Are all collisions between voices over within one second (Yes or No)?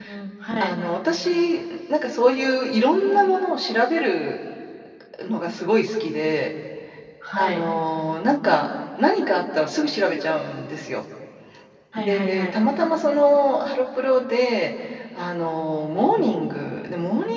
Yes